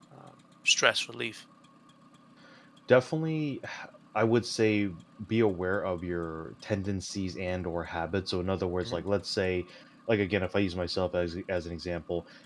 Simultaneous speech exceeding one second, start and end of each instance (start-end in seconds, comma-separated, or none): none